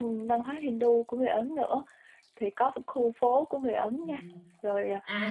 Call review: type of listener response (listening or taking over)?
taking over